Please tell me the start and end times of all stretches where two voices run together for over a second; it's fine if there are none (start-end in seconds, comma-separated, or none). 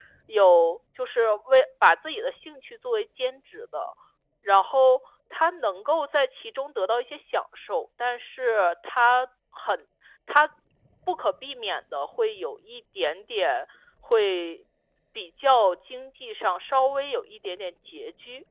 none